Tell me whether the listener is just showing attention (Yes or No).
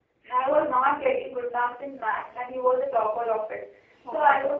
Yes